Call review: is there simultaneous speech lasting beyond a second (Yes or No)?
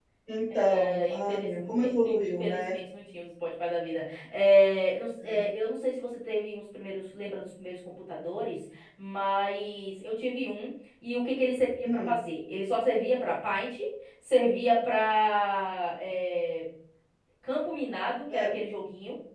Yes